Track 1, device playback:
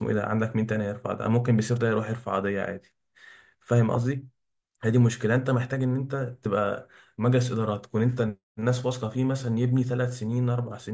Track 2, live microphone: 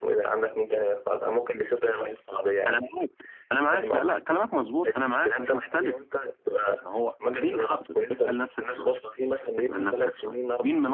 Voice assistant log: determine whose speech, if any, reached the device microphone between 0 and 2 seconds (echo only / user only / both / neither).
echo only